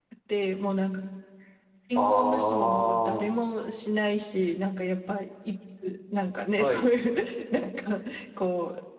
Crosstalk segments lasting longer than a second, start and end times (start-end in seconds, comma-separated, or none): 2.0-3.3